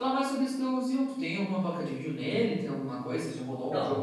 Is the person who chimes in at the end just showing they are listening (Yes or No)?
No